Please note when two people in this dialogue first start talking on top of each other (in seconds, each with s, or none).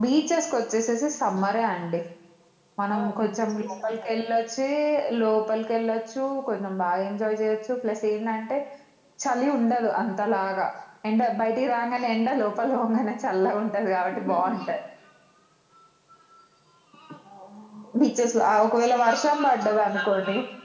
2.9 s